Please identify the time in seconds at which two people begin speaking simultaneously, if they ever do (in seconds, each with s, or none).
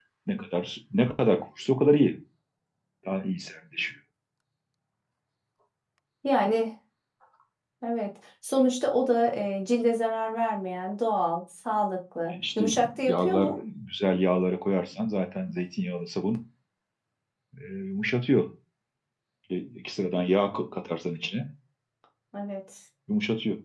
12.3 s